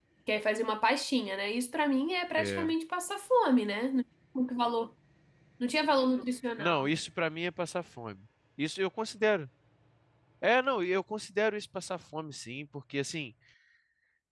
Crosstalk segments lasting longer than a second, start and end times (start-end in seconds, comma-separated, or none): none